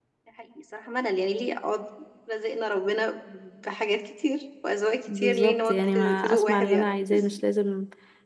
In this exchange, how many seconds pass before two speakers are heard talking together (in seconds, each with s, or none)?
5.1 s